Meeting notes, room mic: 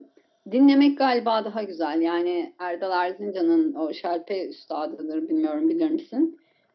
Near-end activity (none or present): none